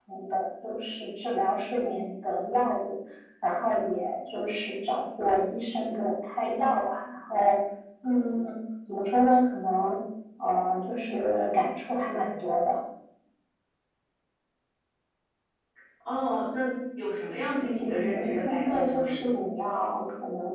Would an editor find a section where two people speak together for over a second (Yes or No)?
Yes